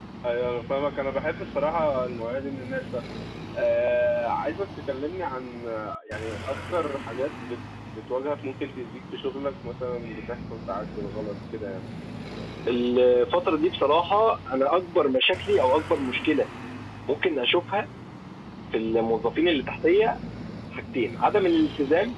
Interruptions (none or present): none